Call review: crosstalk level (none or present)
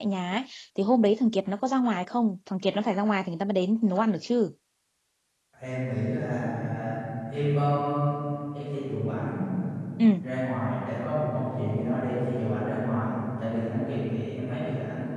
none